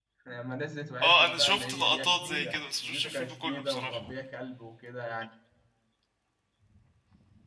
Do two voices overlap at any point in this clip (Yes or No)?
Yes